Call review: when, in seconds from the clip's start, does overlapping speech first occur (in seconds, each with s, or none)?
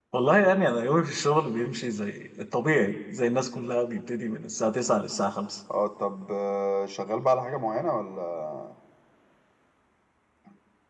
none